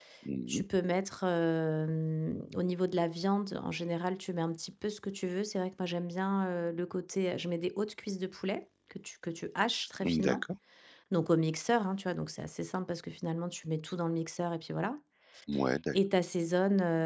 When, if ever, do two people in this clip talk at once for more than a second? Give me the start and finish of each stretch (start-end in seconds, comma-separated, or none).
none